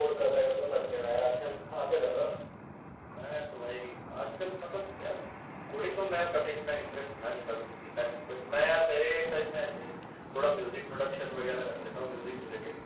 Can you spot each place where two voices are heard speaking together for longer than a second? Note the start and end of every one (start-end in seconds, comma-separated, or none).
none